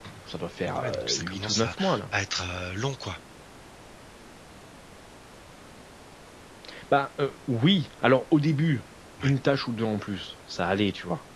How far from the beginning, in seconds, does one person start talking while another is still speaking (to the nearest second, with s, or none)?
1 s